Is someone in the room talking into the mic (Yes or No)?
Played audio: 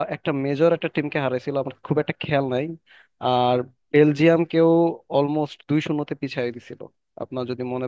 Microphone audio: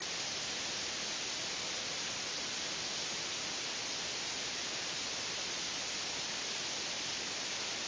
No